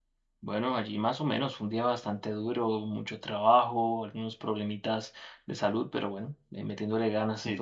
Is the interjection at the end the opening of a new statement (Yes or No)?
Yes